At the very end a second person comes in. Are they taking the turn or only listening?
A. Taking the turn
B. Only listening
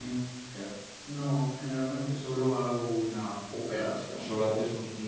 A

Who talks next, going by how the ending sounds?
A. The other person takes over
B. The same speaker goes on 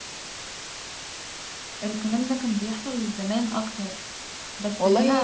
A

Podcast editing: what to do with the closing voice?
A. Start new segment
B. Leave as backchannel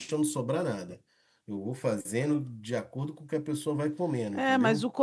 A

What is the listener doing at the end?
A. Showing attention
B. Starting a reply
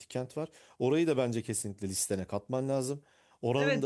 B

